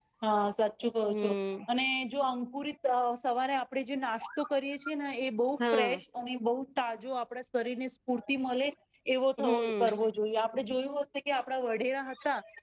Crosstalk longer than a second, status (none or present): none